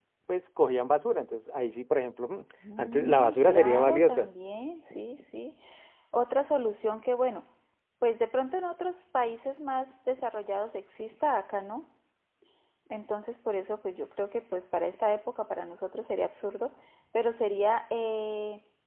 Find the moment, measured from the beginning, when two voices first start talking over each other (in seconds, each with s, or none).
2.6 s